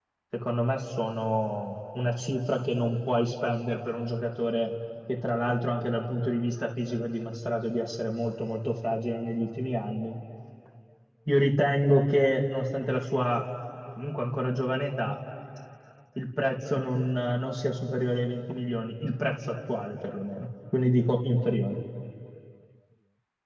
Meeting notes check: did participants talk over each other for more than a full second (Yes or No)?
No